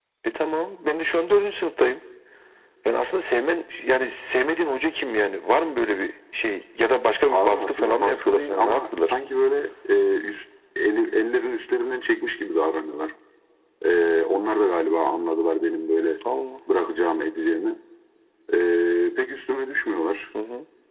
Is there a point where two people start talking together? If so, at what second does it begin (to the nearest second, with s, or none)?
7 s